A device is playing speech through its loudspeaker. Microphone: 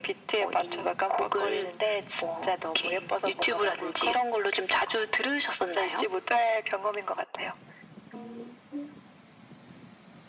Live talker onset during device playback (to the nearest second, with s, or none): none